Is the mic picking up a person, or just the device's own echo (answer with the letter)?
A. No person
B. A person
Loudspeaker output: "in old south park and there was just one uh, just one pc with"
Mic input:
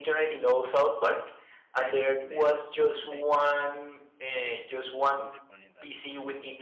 B